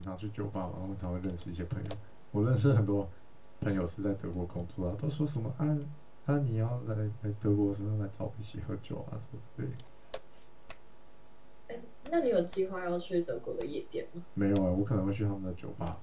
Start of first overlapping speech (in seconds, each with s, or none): none